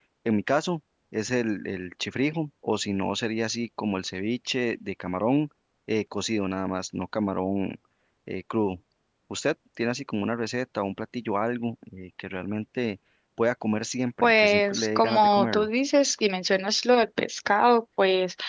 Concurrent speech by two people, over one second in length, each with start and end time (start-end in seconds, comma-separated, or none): 14.2-15.7